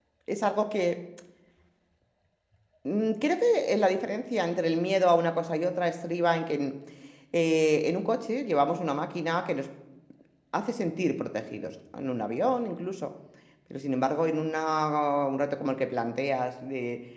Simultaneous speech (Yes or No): No